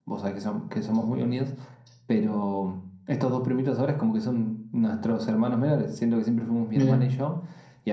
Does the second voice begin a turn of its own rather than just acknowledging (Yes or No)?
No